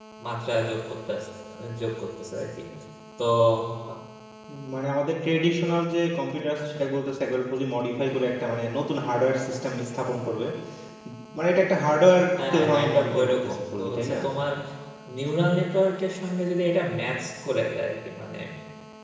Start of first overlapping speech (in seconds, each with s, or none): 12.4 s